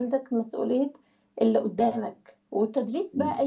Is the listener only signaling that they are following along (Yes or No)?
Yes